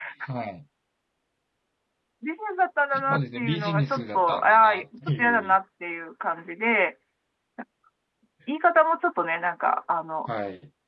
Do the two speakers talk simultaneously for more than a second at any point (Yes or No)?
Yes